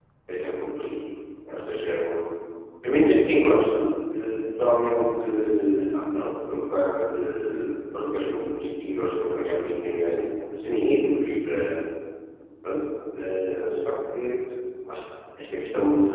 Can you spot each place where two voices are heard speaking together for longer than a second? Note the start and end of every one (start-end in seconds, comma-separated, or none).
none